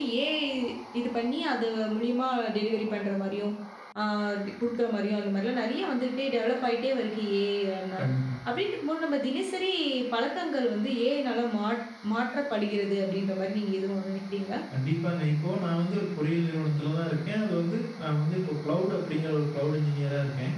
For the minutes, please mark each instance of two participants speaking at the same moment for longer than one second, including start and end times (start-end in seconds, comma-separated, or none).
none